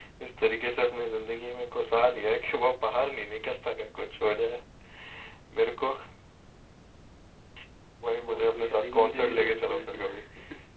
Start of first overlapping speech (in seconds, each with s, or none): 8.2 s